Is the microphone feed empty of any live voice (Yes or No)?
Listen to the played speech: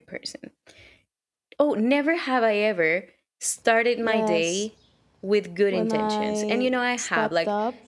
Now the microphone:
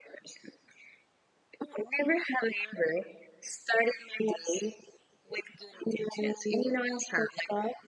Yes